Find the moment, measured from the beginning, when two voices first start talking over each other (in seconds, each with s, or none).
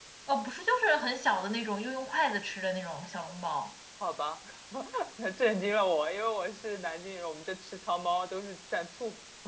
none